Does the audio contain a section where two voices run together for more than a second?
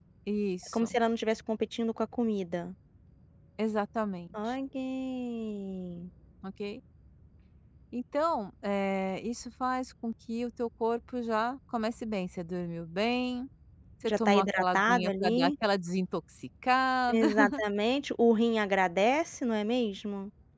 Yes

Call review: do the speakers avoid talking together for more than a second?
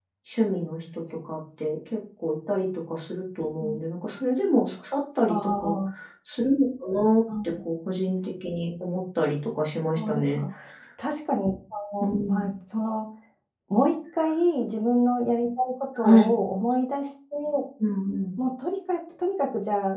Yes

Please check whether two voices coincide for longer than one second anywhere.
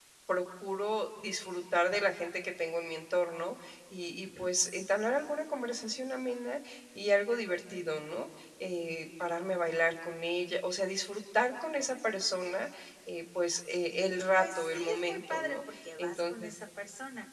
Yes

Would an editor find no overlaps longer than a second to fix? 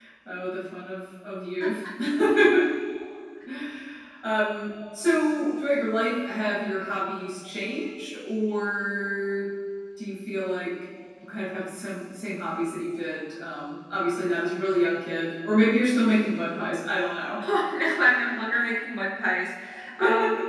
Yes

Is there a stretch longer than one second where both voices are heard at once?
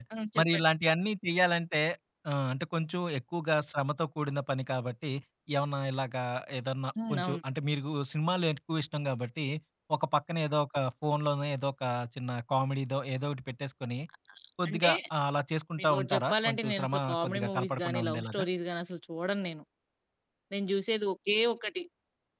Yes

